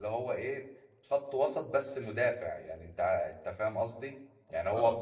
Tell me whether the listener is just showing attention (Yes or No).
Yes